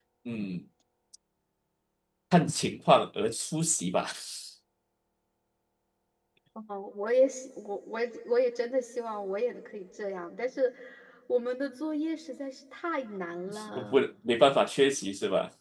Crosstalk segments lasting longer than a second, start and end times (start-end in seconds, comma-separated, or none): none